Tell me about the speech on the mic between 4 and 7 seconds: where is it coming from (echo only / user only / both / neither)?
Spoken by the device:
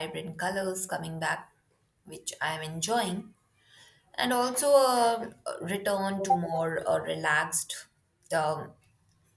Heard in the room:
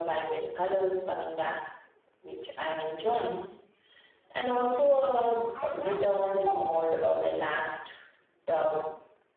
both